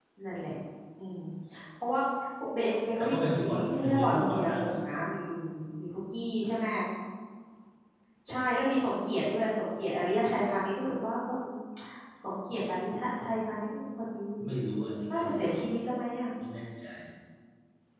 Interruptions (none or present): present